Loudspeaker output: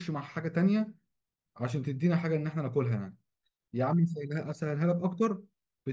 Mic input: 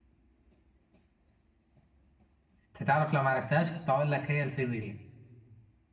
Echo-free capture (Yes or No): Yes